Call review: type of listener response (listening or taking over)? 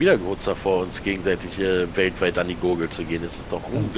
taking over